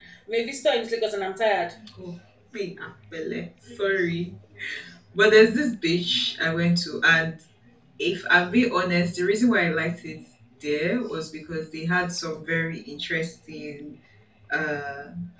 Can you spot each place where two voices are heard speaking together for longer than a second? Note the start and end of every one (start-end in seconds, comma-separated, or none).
none